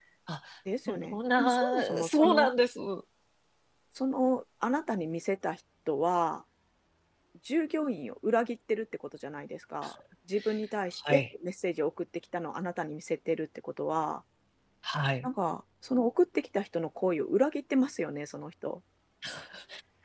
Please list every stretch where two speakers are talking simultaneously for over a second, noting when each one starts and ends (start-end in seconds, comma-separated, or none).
0.9-2.5